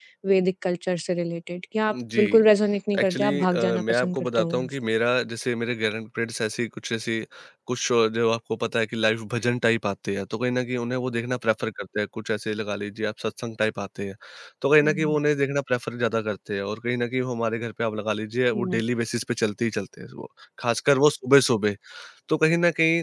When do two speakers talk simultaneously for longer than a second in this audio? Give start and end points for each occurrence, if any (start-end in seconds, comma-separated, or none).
3.0-4.8